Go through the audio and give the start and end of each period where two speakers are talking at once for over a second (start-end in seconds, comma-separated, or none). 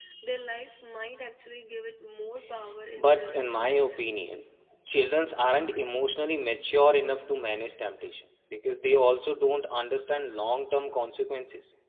3.0-4.3